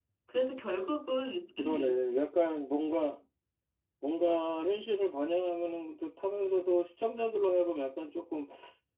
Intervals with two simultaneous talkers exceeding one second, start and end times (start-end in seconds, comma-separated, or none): none